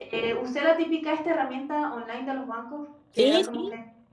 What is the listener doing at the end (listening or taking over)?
listening